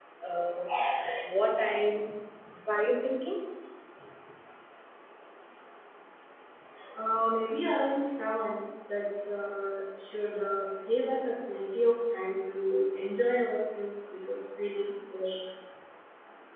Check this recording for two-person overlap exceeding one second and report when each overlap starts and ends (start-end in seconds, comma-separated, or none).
none